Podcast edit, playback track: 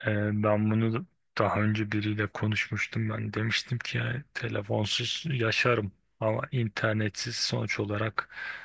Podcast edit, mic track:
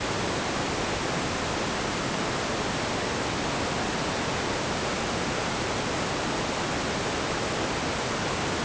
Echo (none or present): none